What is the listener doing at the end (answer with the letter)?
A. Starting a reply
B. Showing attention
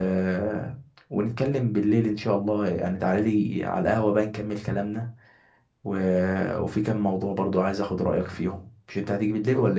A